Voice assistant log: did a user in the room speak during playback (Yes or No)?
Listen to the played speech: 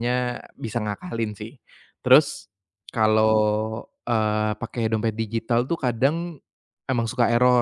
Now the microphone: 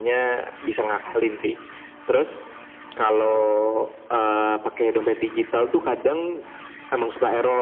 No